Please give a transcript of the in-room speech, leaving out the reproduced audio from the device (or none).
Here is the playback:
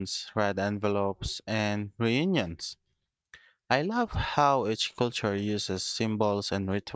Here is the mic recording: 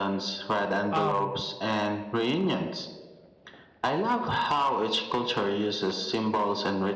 um,